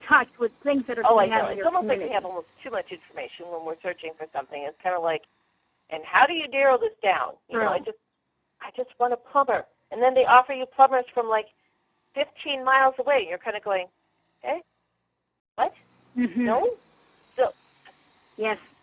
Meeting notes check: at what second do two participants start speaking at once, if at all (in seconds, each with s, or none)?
1.0 s